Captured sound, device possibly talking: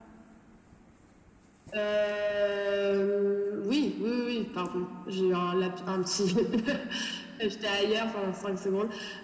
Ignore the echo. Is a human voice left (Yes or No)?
No